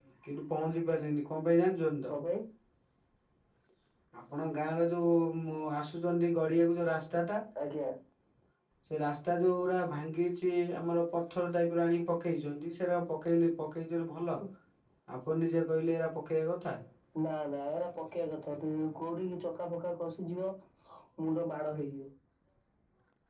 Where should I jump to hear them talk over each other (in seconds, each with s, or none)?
none